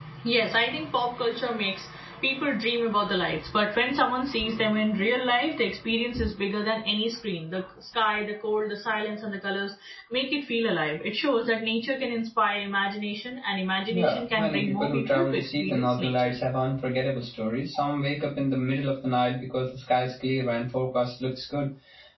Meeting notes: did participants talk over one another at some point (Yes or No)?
Yes